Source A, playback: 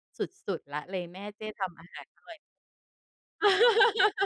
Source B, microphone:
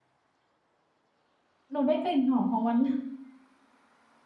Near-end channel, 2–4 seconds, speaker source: user only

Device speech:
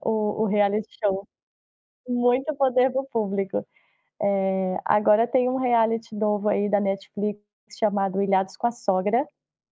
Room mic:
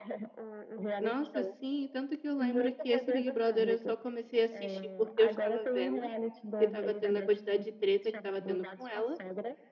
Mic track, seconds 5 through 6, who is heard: both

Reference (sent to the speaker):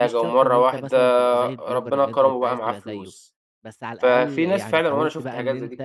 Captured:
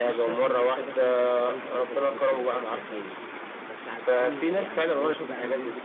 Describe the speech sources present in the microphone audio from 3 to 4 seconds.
echo only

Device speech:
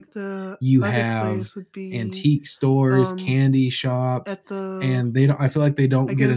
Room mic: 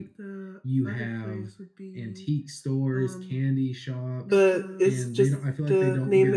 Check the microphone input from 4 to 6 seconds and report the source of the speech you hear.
both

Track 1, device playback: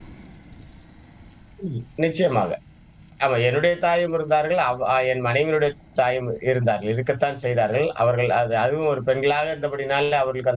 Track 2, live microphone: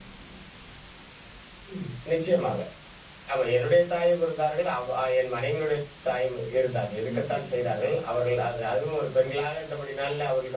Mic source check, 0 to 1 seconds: neither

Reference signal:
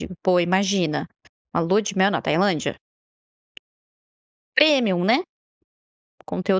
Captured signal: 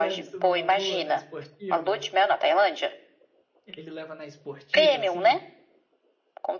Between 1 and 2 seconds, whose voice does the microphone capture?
both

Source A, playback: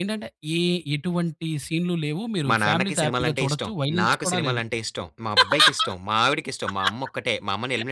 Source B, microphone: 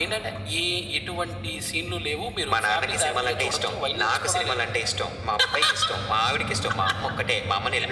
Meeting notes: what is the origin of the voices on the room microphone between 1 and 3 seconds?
echo only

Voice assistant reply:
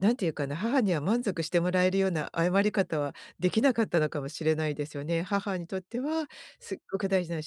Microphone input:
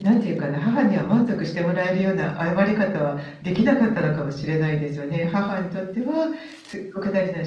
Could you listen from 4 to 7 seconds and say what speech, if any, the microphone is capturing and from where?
echo only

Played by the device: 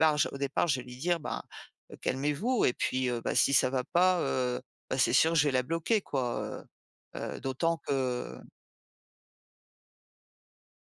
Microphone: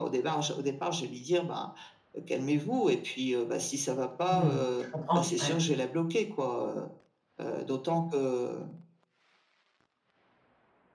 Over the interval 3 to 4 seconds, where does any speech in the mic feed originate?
echo only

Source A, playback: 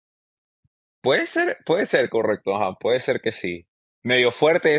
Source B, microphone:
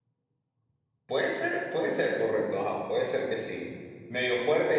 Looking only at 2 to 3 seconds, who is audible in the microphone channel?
echo only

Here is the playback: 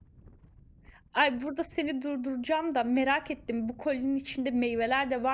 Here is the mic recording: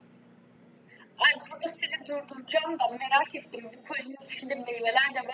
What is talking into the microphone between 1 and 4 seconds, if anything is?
echo only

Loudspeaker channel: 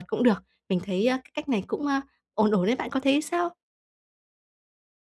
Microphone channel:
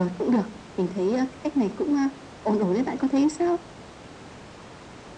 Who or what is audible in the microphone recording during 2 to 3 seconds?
echo only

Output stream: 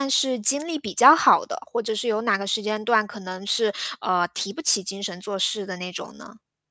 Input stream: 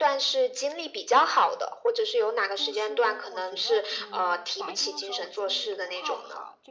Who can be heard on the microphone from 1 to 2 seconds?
echo only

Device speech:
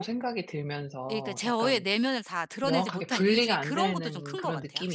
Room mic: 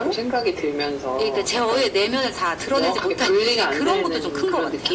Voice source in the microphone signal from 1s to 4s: echo only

